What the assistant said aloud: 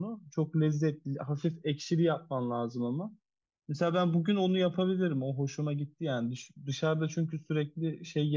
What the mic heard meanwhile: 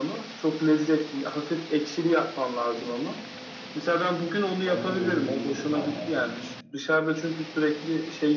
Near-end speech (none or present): present